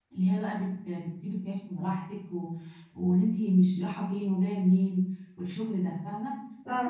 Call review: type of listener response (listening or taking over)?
listening